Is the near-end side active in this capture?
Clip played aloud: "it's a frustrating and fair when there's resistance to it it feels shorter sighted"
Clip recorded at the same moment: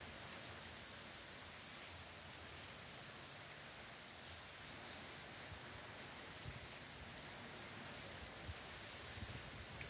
No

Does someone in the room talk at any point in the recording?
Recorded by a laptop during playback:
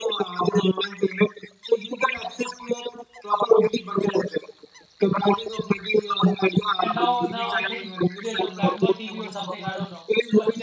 Yes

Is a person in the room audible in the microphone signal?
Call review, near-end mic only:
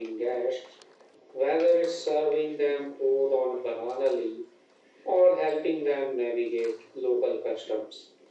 No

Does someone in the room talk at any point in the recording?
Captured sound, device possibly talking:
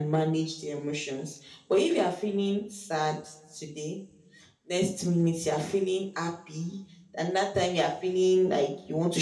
No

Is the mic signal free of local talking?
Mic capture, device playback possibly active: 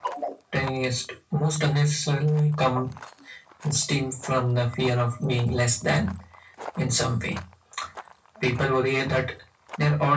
Yes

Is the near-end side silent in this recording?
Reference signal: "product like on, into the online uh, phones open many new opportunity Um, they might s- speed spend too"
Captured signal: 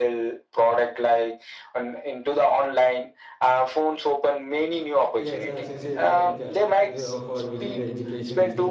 No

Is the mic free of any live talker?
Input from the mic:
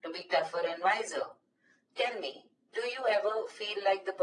Yes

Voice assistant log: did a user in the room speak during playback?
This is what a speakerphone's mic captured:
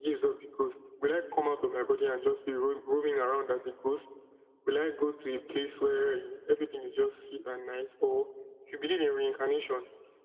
No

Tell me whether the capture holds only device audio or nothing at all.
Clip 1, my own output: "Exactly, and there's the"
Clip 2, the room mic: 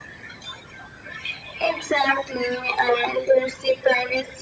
Yes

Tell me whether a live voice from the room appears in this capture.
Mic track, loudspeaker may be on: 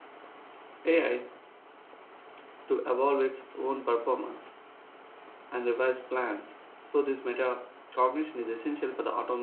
Yes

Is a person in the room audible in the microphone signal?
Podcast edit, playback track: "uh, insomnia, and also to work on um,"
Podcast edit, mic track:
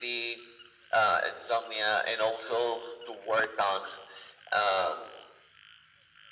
No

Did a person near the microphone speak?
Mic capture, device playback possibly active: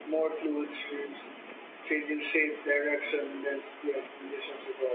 No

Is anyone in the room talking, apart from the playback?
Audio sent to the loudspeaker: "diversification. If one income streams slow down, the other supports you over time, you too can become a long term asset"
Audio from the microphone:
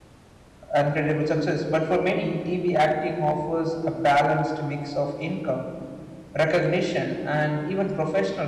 Yes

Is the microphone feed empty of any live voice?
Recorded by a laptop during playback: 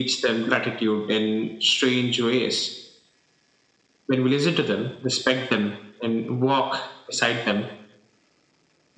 Yes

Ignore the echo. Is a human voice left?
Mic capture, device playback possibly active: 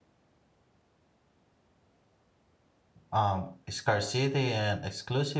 Yes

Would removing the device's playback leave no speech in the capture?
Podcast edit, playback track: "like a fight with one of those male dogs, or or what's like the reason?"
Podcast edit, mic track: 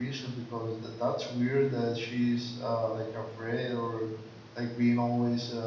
No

